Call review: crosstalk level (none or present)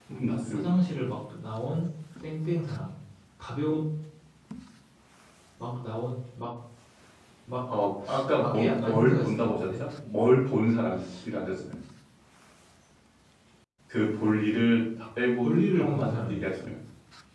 present